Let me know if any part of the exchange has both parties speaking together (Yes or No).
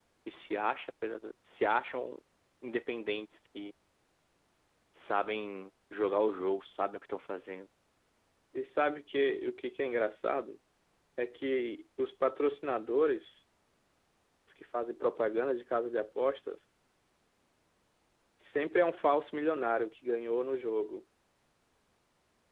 No